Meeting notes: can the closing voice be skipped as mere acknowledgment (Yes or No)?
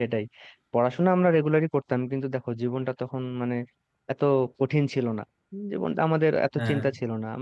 Yes